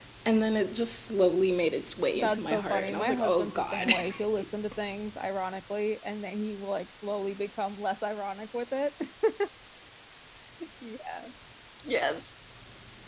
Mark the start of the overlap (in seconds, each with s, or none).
2.1 s